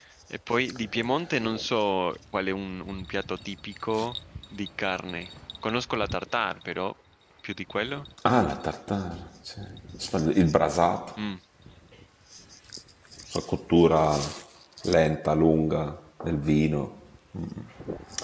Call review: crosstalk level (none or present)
none